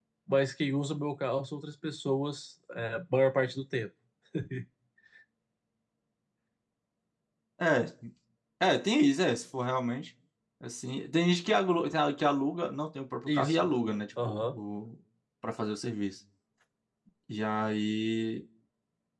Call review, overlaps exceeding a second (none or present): none